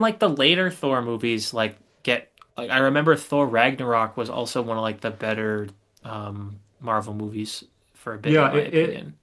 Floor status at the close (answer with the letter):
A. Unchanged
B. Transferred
B